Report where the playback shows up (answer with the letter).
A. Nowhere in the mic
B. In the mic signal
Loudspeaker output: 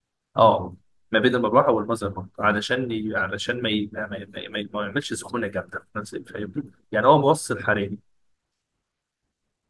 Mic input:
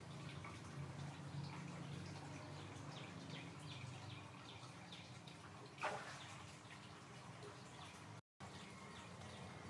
A